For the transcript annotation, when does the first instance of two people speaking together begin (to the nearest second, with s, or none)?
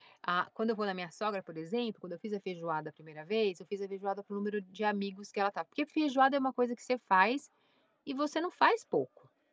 none